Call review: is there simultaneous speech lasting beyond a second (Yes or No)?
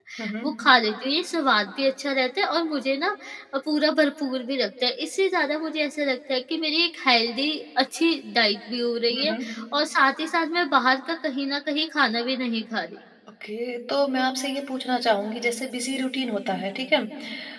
No